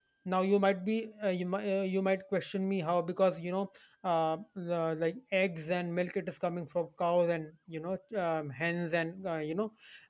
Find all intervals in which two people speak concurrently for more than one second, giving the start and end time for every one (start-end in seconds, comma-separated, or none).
none